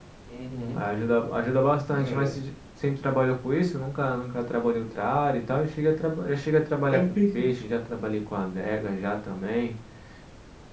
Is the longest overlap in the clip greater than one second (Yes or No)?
No